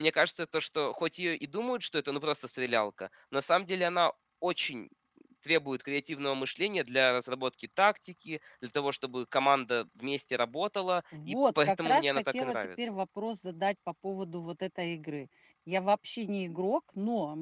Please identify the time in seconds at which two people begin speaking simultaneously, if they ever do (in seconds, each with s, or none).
11.1 s